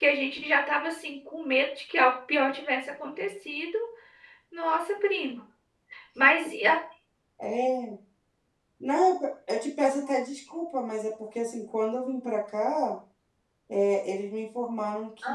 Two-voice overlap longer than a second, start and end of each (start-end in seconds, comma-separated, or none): none